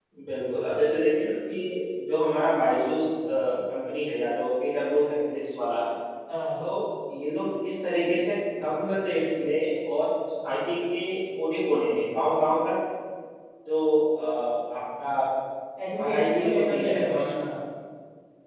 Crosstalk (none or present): present